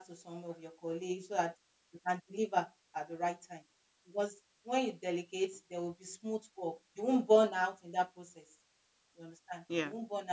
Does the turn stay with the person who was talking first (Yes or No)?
Yes